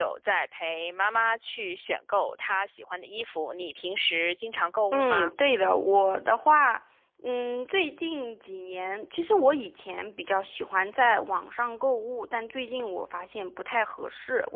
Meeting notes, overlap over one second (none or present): none